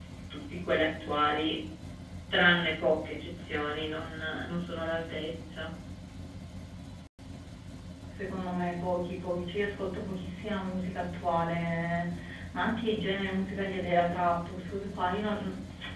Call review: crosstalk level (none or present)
none